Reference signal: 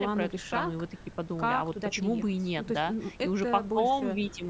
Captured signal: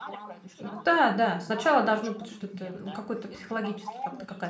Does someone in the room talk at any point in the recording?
Yes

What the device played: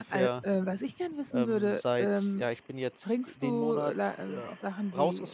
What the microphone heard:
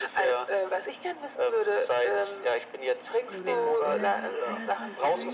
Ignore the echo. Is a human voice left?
Yes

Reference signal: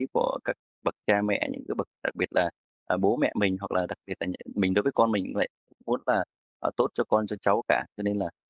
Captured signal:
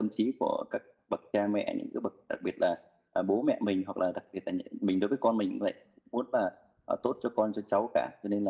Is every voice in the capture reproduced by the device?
Yes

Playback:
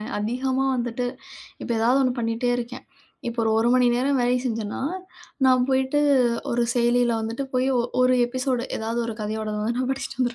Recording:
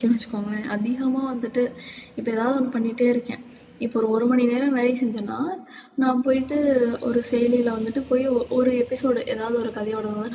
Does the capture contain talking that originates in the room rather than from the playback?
No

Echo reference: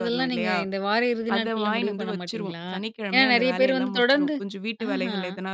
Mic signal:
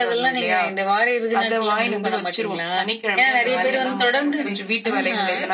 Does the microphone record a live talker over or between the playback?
Yes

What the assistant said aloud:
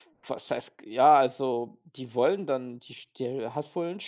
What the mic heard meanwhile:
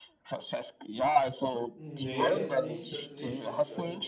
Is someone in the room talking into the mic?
Yes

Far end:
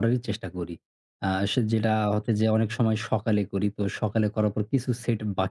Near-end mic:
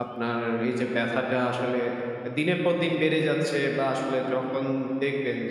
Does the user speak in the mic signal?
Yes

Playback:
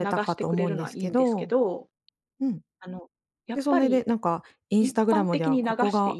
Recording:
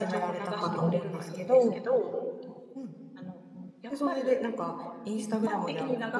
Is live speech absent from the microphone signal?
Yes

